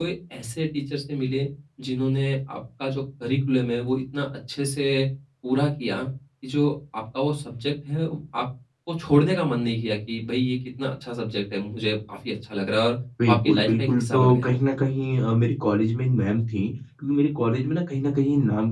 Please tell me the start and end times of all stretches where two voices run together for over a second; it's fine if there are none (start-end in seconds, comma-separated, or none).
13.3-14.6